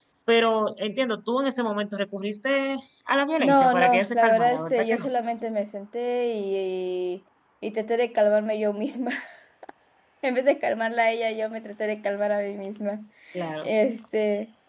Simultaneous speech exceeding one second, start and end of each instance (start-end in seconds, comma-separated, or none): 3.4-5.1